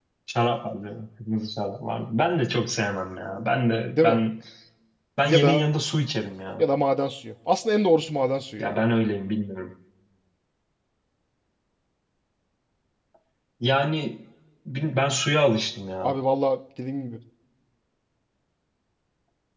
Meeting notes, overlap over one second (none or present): none